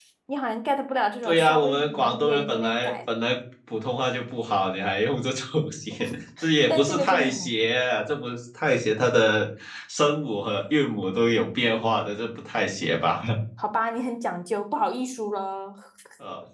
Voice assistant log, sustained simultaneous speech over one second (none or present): present